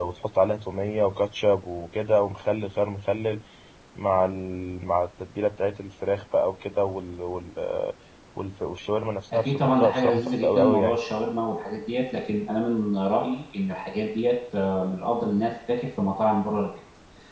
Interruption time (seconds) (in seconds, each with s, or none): 9.3 s